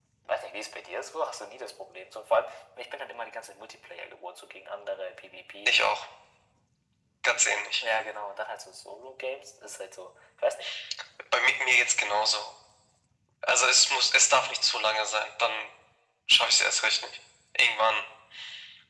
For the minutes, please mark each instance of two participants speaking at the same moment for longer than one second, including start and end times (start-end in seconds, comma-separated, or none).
none